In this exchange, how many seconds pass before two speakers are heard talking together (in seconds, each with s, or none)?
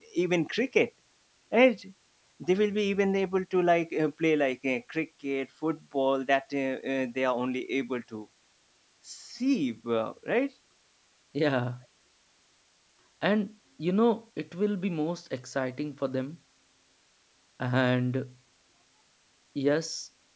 none